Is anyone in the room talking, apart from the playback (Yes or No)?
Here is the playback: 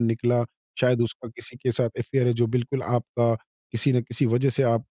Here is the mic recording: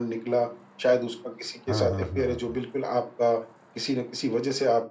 Yes